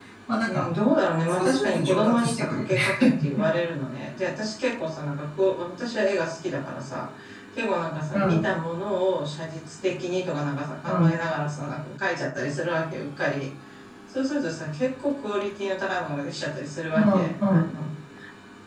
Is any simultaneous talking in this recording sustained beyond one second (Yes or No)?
Yes